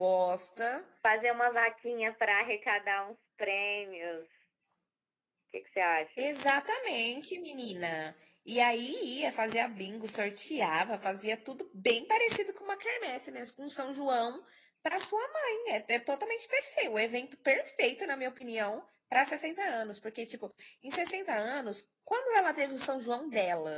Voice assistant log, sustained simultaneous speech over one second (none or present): none